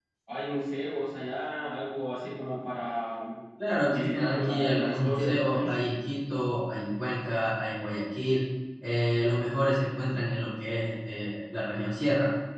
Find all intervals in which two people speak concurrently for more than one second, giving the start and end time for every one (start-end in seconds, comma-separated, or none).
3.9-5.7